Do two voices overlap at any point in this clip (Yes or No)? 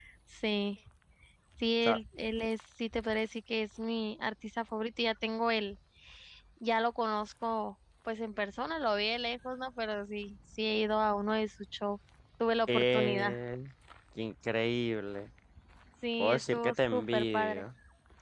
Yes